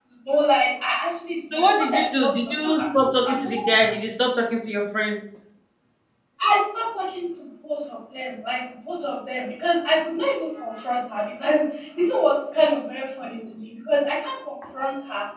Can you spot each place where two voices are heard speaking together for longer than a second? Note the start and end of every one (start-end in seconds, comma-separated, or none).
1.5-3.9